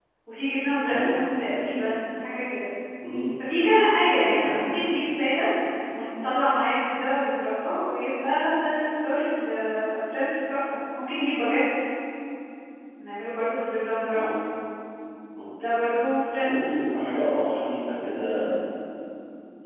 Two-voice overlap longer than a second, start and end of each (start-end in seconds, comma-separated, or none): none